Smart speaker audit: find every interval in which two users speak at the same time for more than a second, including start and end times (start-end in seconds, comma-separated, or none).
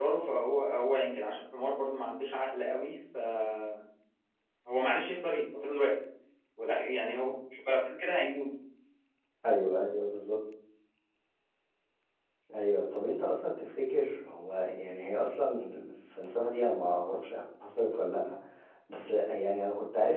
none